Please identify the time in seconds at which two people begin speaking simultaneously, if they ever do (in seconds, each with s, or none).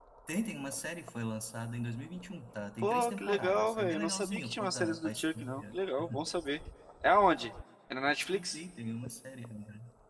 2.8 s